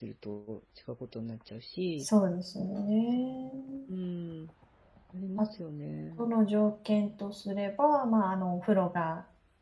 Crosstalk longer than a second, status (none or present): none